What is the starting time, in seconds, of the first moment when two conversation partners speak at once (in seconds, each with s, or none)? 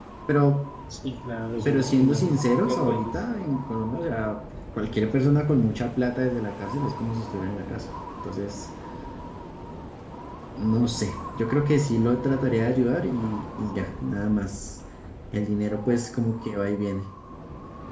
1.6 s